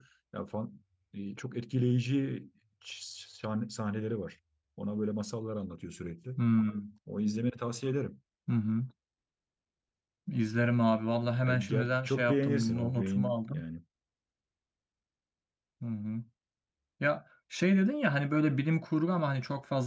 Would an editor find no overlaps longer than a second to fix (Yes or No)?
No